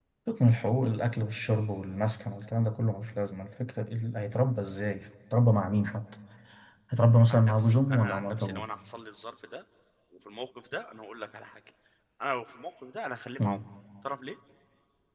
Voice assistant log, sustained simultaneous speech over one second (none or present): present